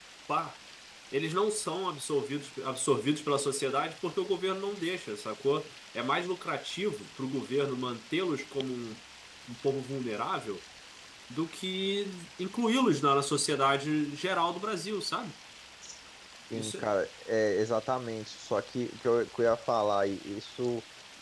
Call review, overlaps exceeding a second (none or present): none